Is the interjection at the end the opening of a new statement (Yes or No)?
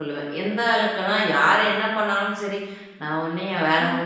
No